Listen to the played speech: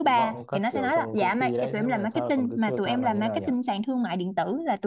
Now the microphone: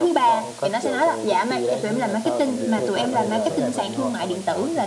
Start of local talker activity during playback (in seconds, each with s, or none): 2.5 s